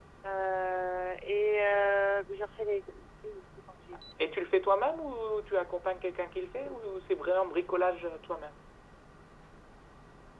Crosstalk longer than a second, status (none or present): none